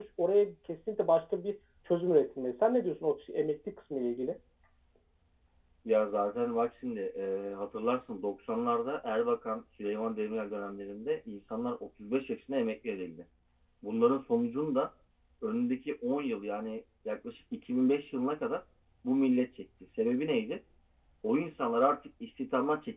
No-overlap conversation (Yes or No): Yes